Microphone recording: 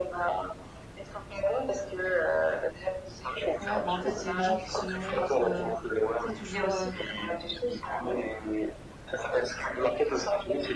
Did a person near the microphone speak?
Yes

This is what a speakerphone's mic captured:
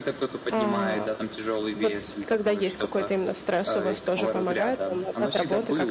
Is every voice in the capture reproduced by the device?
No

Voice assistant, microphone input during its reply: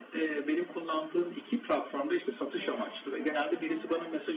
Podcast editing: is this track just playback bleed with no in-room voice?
No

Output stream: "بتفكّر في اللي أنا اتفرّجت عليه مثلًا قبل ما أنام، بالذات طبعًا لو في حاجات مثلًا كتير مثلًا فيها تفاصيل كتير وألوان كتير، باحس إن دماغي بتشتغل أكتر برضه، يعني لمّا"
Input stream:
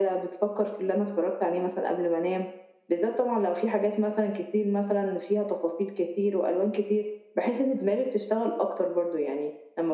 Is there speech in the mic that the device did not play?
No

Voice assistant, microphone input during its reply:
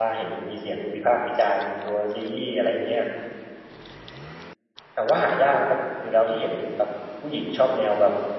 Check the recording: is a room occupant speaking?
Yes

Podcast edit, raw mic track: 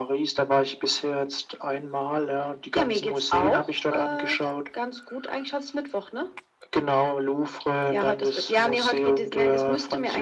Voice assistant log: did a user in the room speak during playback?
No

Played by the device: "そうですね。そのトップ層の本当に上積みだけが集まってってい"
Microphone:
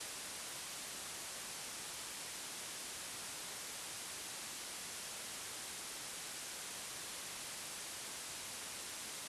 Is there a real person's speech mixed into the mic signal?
No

